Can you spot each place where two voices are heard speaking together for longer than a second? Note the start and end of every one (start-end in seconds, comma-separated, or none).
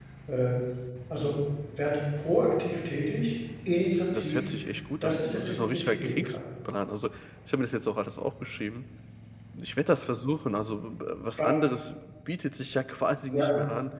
5.0-6.4